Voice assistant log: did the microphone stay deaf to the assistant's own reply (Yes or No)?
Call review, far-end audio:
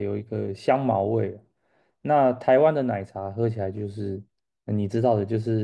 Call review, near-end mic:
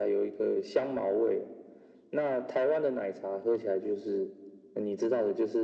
No